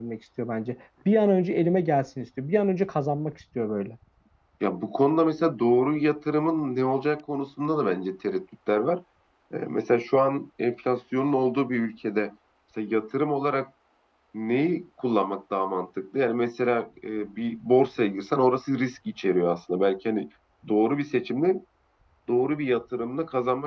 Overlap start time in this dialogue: none

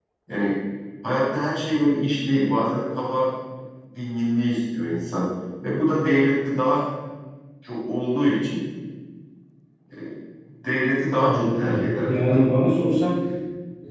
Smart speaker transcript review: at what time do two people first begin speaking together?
11.2 s

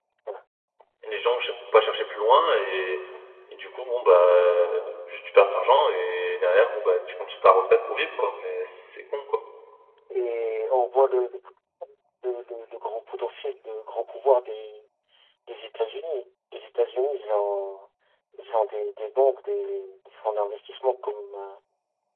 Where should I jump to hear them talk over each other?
none

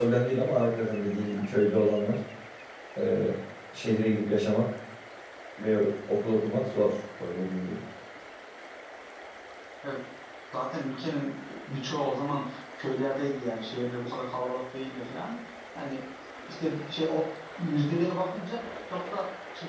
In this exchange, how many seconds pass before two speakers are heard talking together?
none

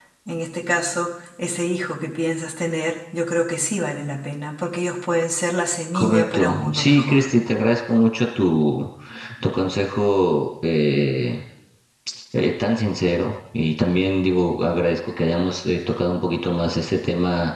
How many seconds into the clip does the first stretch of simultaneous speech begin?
5.9 s

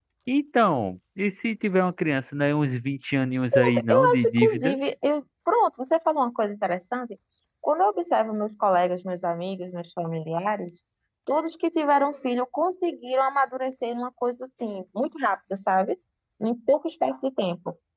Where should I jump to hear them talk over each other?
3.5 s

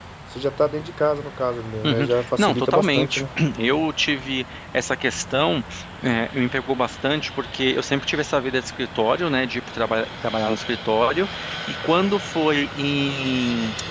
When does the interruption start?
1.8 s

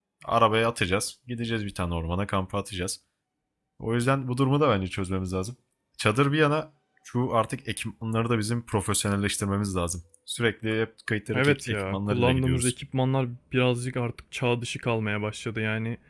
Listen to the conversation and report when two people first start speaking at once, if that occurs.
11.3 s

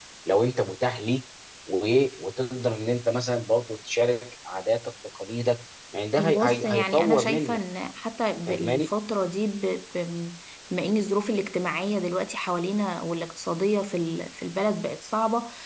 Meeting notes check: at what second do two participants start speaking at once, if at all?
6.2 s

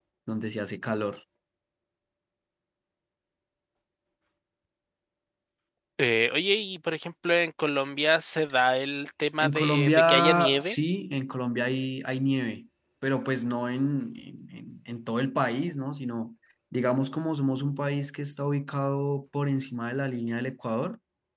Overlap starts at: 9.4 s

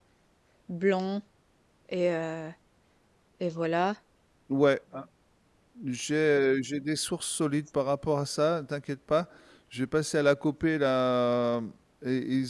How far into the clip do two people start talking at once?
none

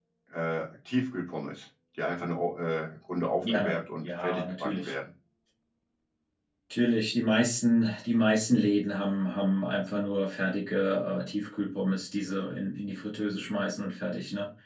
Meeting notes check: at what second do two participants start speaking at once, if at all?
3.4 s

